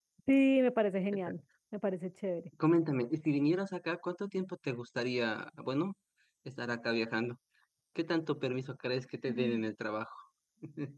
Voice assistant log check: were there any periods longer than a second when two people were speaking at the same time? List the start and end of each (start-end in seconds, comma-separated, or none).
none